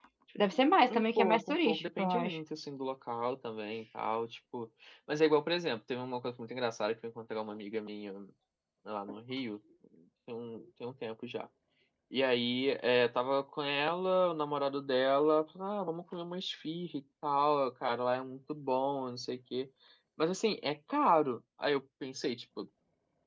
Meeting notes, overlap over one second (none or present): present